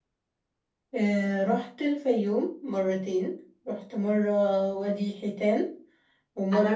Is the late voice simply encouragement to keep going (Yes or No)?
No